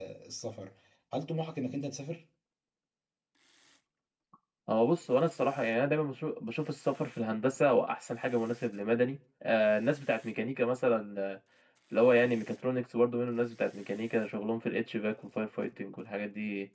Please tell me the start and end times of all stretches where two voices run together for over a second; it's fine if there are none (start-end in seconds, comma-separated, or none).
none